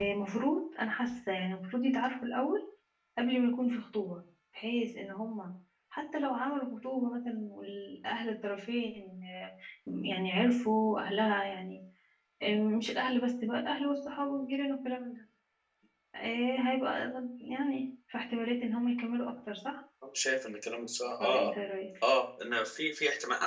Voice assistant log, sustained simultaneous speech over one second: none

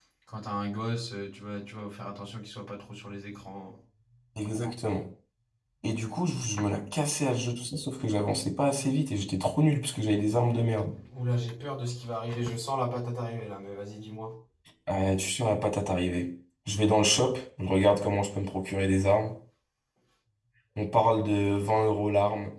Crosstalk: none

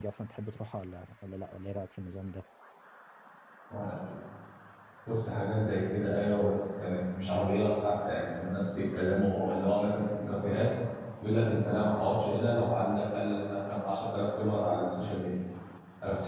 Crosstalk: none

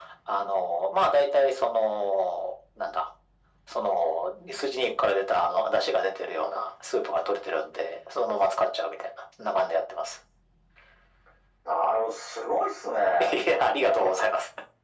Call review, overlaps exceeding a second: none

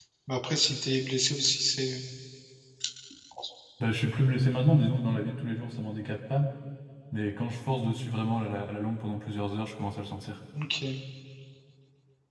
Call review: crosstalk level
none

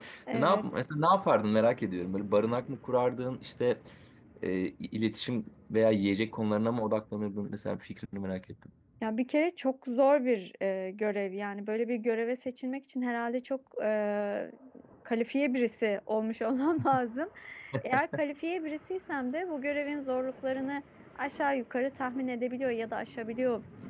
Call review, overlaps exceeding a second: none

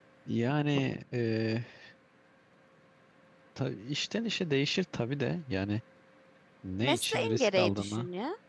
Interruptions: present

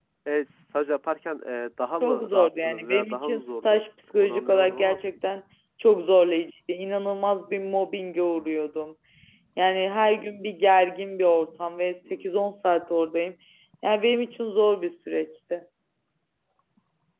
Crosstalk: present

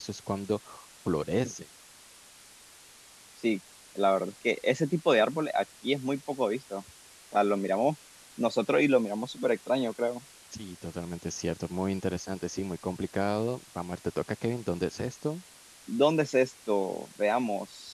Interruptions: none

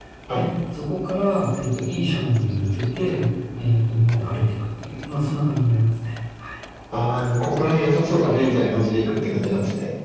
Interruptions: none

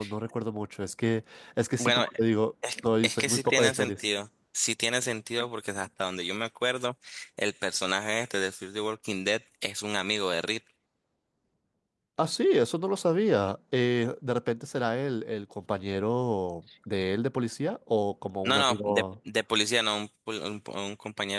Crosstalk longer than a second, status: present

